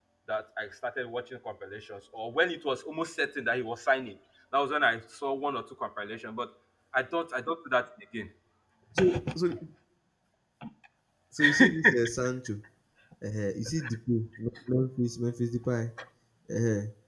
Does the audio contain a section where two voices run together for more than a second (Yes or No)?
No